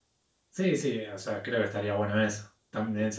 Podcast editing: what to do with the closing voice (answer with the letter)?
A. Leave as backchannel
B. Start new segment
A